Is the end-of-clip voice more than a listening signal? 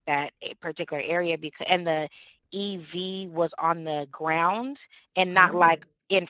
No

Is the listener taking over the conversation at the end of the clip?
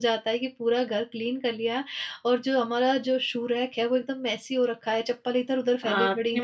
Yes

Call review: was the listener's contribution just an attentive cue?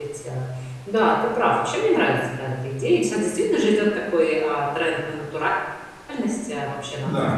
Yes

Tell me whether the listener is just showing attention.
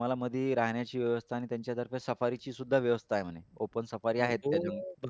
No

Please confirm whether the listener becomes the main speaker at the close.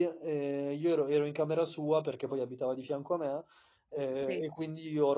No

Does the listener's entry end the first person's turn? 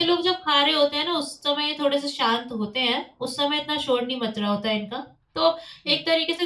No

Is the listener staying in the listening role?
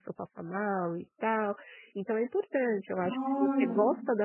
Yes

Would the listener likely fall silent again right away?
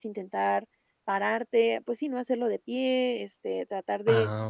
Yes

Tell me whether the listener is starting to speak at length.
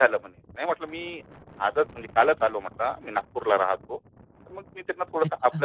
No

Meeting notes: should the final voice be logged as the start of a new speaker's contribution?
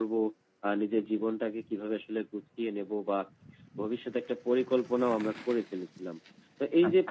No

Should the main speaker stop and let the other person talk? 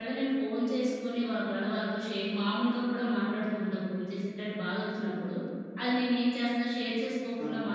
No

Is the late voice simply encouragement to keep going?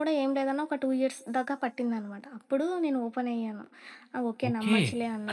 No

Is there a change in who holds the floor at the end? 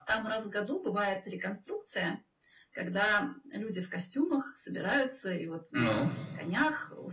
No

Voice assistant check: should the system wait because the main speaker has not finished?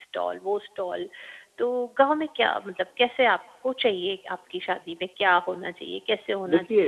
Yes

